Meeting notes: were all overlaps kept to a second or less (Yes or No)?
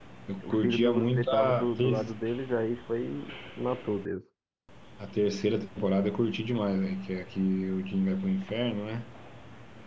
No